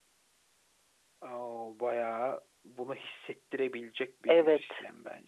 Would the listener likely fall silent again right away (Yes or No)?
No